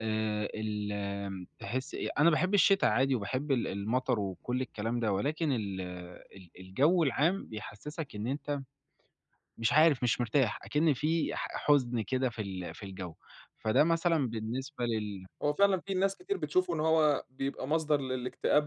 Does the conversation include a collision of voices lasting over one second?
No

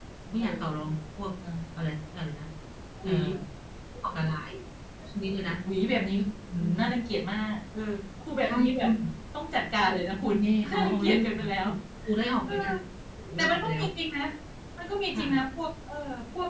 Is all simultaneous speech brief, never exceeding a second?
No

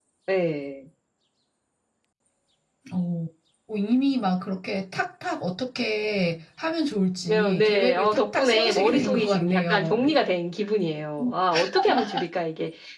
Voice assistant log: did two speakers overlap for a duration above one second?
Yes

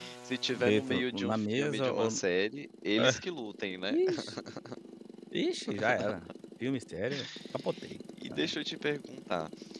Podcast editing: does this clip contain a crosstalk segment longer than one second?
Yes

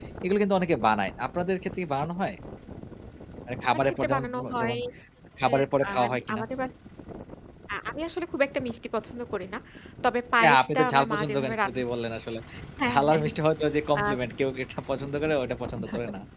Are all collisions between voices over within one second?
No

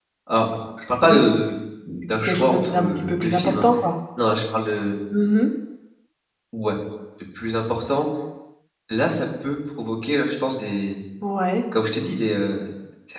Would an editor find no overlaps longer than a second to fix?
No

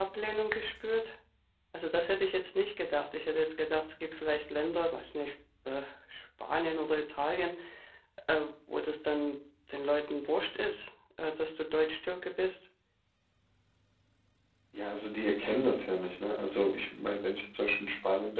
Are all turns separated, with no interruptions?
Yes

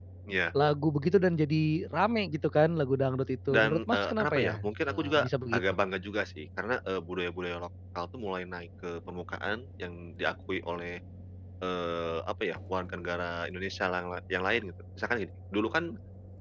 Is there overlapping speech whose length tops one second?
Yes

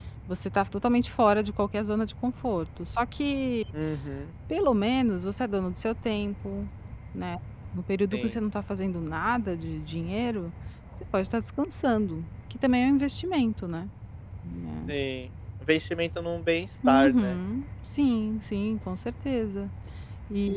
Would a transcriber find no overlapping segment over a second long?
Yes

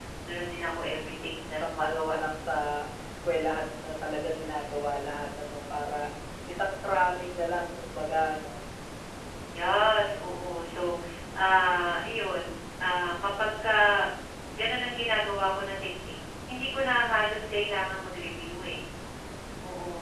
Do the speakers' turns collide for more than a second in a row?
Yes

